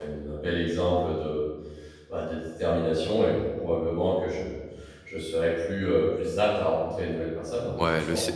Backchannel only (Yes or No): No